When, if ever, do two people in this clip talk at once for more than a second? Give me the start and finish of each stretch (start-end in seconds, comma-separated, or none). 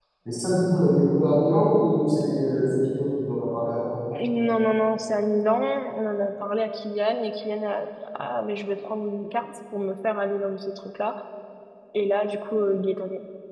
none